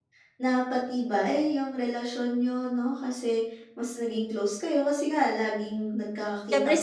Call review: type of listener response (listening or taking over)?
taking over